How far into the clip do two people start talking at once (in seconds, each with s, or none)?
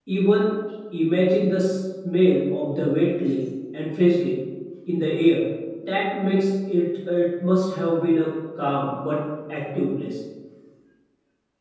none